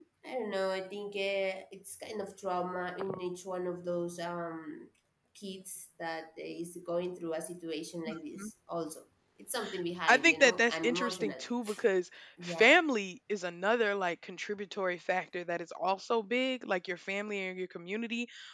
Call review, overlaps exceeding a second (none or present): present